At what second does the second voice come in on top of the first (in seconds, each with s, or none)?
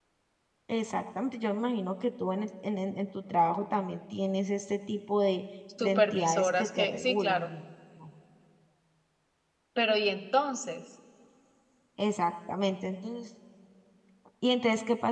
5.8 s